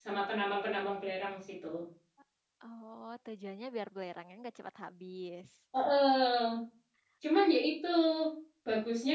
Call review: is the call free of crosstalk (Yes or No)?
Yes